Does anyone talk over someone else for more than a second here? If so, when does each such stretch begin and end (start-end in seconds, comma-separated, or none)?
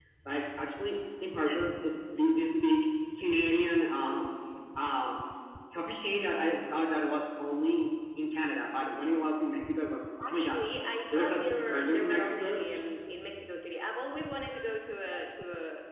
11.1-12.6